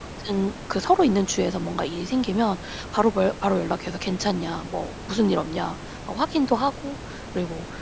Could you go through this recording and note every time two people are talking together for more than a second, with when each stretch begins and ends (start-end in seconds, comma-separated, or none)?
none